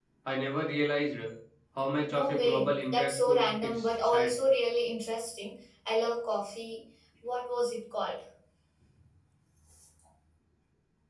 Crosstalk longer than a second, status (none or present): present